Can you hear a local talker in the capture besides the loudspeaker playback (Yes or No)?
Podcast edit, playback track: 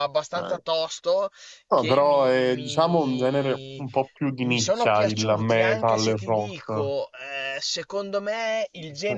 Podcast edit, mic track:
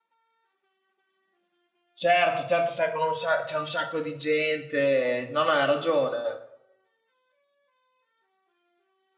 Yes